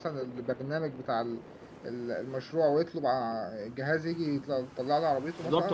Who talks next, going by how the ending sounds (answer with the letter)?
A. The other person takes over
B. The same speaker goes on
A